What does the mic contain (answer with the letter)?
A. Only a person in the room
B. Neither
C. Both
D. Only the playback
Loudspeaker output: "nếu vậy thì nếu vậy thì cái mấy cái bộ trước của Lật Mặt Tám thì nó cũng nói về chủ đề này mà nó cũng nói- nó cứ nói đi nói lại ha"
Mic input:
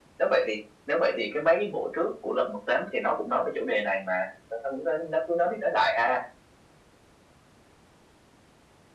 D